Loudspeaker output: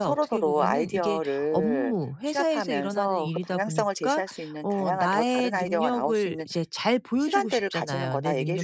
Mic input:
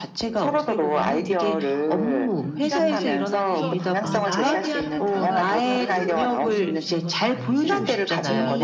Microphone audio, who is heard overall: both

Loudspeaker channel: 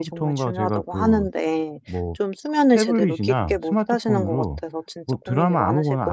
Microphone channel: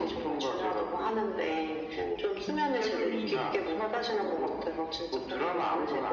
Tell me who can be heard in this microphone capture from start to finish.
both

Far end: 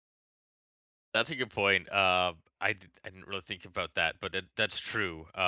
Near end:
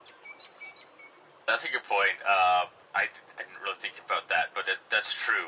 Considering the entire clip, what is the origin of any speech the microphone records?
echo only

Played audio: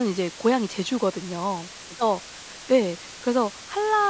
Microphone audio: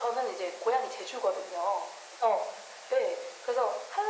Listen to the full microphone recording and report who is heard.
echo only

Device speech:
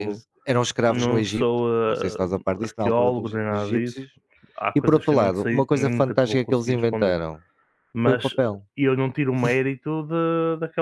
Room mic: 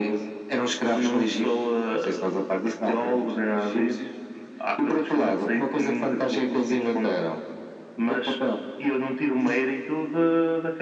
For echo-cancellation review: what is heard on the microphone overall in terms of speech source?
echo only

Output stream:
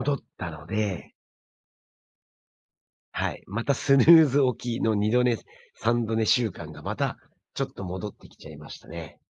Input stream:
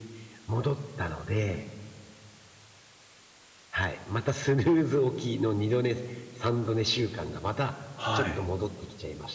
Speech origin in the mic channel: both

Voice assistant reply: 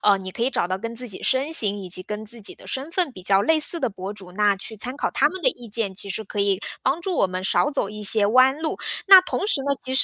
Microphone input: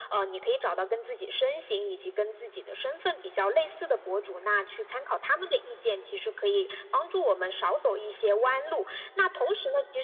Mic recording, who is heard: echo only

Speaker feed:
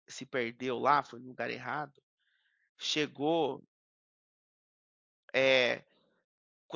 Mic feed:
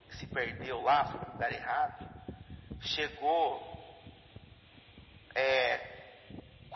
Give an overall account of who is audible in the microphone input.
echo only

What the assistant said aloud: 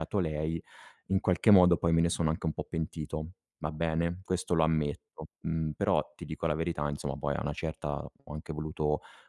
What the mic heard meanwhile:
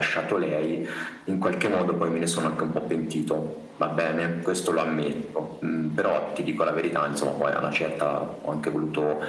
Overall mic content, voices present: echo only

